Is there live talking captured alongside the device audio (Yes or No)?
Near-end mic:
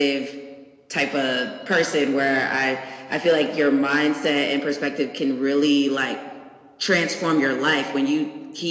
No